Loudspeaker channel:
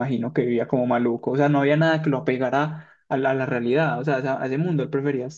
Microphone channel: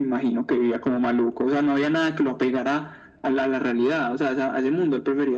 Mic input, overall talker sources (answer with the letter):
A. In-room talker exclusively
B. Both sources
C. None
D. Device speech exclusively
D